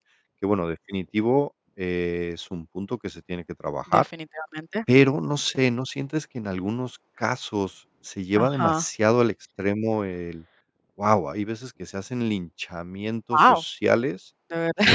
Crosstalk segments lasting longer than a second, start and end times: none

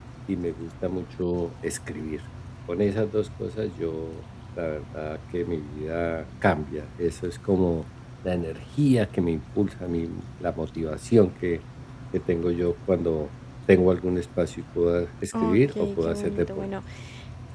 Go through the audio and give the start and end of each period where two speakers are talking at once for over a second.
15.4-16.7

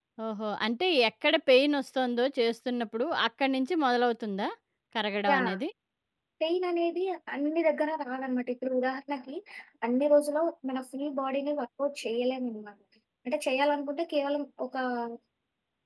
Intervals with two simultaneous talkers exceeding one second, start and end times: none

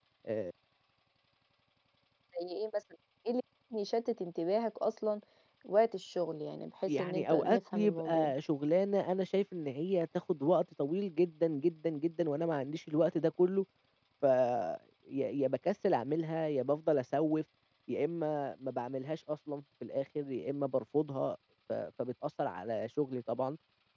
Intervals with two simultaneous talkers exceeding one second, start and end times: 6.9-8.3

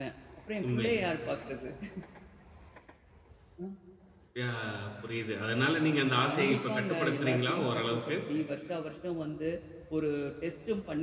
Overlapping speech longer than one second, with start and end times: 6.3-8.1

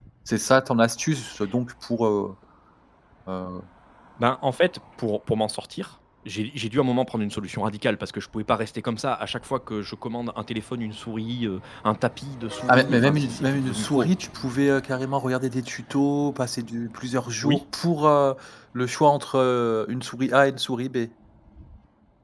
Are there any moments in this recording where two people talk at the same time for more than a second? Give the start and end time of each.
12.7-14.1

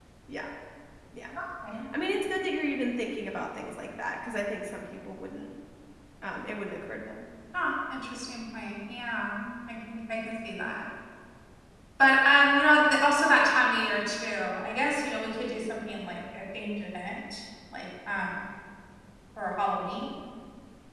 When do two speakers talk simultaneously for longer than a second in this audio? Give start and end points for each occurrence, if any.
none

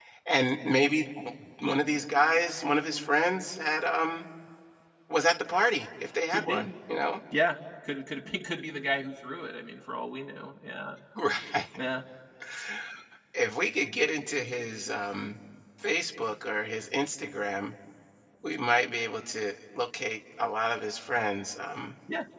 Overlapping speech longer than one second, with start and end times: none

